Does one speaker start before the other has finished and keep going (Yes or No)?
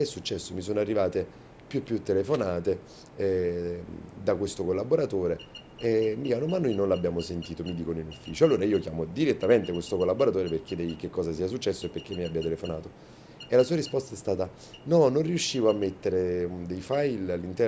No